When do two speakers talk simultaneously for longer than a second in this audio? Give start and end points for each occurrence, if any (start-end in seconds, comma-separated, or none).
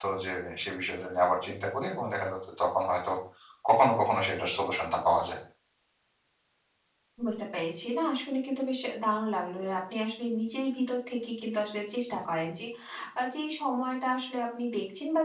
none